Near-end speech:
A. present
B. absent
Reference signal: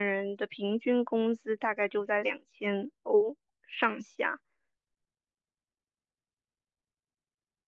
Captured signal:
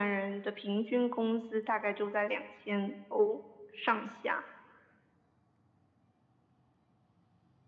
B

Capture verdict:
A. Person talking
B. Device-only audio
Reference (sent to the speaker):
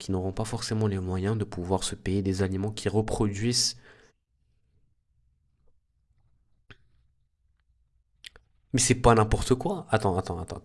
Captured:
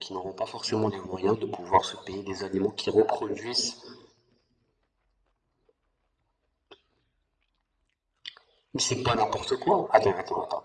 B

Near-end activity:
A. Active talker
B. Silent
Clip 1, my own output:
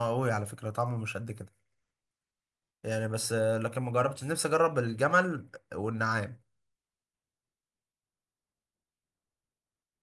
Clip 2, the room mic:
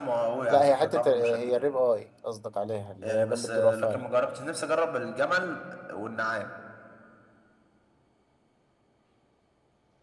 A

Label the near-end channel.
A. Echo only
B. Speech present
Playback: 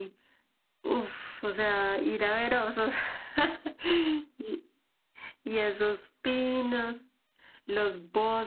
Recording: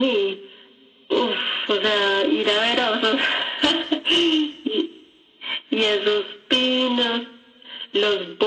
A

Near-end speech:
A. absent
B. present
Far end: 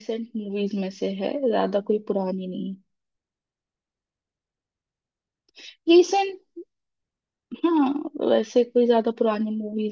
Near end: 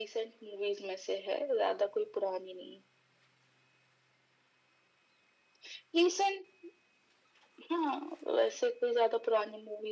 A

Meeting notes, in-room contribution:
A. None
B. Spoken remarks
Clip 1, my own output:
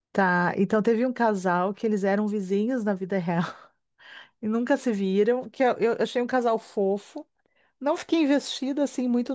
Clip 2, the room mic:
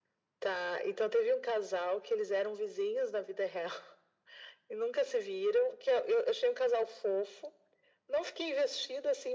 A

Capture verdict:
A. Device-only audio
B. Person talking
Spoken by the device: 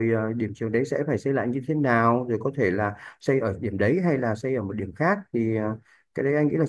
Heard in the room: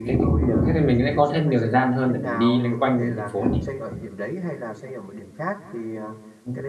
B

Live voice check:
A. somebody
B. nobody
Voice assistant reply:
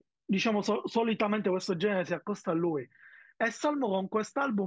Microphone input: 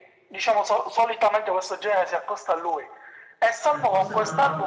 A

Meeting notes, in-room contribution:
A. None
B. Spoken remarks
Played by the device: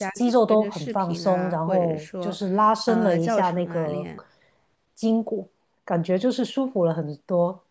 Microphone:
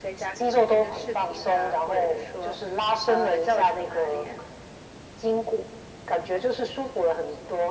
A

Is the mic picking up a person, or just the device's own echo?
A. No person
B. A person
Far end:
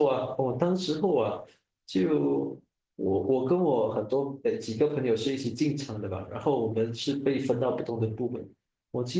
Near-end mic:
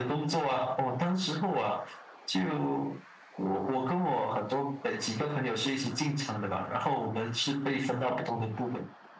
A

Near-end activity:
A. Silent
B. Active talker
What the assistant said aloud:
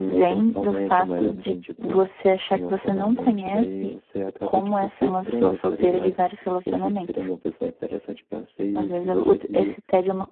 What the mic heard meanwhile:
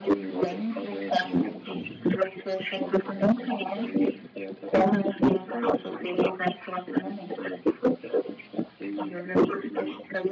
B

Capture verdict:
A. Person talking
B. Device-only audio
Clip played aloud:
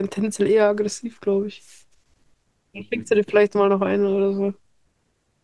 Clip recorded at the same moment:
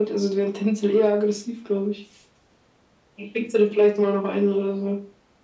B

